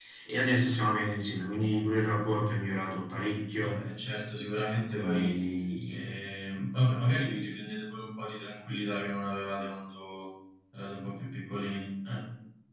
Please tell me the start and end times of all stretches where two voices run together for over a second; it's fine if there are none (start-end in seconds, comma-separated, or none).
none